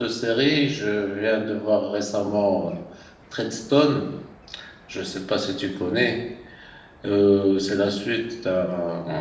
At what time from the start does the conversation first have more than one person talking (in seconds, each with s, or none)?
none